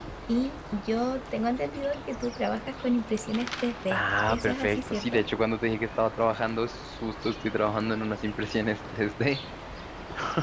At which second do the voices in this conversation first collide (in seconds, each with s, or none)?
3.9 s